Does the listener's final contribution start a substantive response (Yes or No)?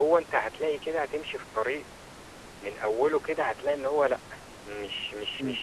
No